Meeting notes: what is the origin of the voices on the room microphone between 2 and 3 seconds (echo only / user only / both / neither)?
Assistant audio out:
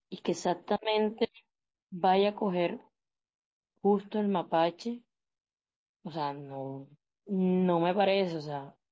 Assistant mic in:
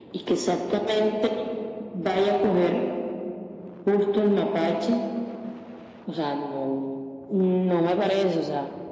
echo only